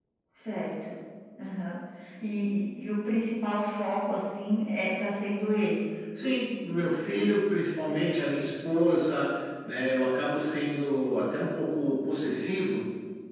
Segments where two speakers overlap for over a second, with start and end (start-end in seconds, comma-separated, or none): none